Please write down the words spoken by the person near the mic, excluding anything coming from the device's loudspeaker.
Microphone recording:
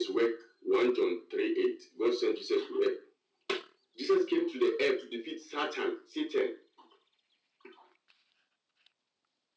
none

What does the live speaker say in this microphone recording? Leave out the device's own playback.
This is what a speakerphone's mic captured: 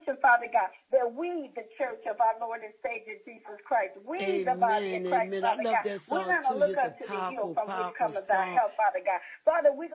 Amen, amen. I love that song too. It's a powerful, powerful song.

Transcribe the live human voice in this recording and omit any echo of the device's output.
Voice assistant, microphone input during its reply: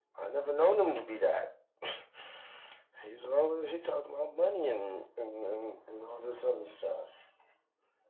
none

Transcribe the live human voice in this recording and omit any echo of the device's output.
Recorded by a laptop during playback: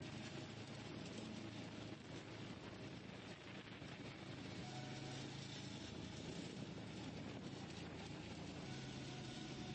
none

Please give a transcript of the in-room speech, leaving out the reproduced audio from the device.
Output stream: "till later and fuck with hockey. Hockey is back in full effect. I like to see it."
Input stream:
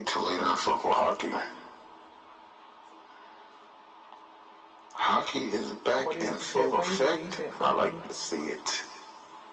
Cordier used to share plays with me. He said, fuck me.

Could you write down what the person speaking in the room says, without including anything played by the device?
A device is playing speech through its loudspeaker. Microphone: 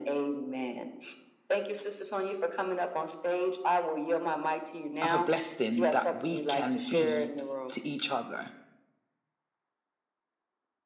of a blessing that we can be to each other

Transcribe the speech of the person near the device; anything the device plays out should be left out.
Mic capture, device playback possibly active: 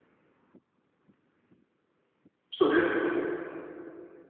So yes.

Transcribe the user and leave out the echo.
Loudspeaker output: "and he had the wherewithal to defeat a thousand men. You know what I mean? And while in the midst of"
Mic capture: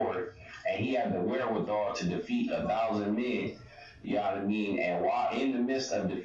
none

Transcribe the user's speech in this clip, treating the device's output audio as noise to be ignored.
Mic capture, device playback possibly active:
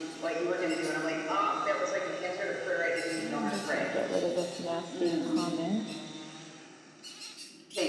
I'm just going to get rid of this nasty comment.

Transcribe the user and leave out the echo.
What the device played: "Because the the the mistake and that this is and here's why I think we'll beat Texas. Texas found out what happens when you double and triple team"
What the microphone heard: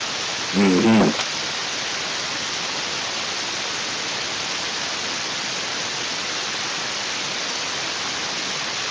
hmm

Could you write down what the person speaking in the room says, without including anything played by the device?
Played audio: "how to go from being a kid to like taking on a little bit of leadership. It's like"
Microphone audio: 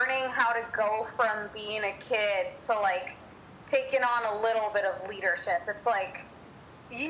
none

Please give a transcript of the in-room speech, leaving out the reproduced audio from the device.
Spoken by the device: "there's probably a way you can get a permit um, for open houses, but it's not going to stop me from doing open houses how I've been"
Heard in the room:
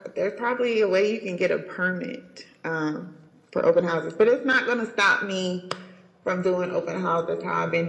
none

